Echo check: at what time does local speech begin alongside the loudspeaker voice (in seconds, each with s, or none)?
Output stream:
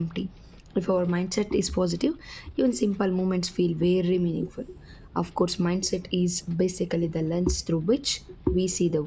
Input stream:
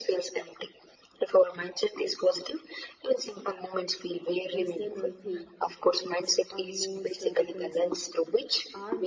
4.5 s